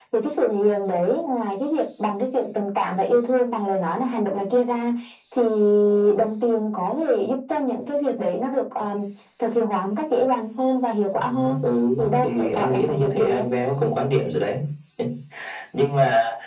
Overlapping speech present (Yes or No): Yes